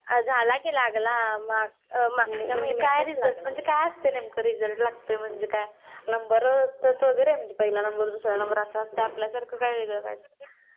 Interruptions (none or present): present